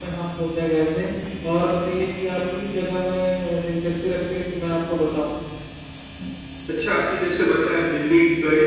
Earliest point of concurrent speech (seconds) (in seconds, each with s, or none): none